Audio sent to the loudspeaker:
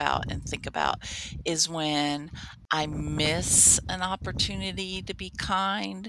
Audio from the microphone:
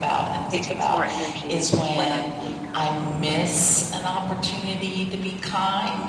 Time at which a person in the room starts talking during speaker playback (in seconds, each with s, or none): 0.5 s